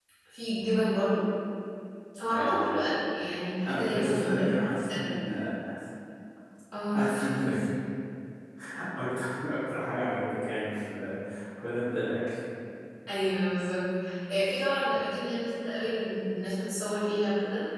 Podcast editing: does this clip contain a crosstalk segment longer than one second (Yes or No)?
Yes